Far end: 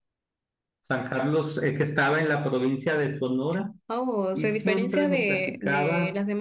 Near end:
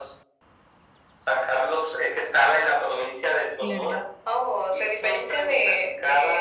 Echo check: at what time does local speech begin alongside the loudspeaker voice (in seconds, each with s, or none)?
3.5 s